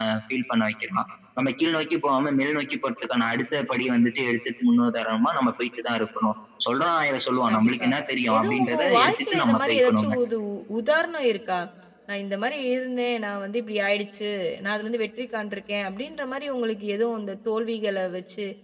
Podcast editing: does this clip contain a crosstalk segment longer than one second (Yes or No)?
Yes